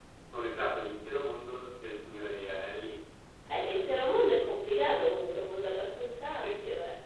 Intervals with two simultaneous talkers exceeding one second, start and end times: none

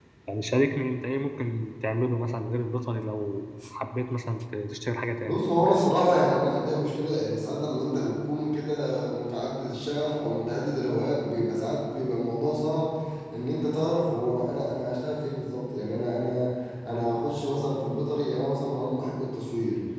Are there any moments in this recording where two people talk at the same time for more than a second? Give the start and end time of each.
none

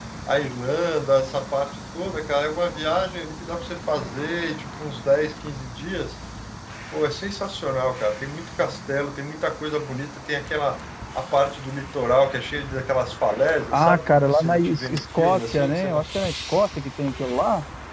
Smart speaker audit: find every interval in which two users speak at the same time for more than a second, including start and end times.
13.7-16.0

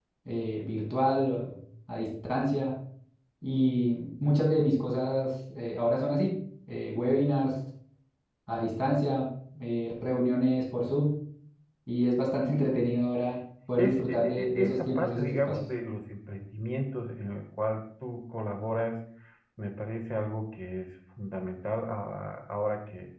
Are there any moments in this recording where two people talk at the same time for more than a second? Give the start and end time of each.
13.8-15.6

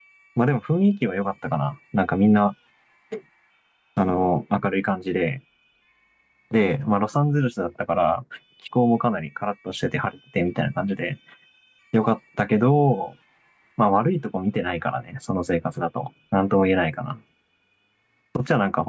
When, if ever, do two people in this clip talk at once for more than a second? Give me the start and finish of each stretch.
none

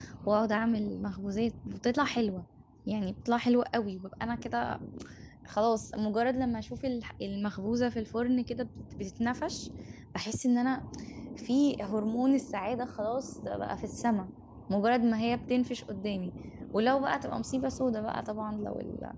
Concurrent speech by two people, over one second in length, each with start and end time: none

